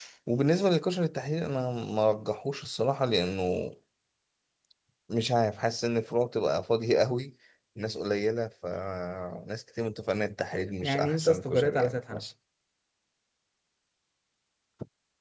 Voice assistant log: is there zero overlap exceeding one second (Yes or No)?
No